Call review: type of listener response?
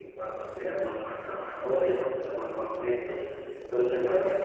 listening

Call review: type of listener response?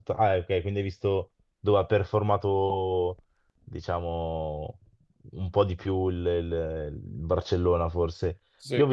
listening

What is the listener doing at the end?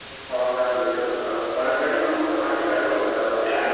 taking over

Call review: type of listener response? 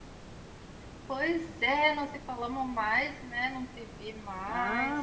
taking over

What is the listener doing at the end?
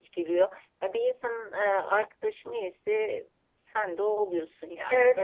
taking over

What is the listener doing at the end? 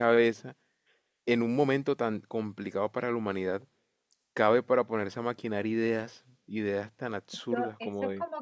taking over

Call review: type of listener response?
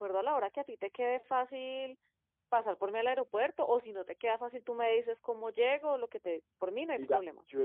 taking over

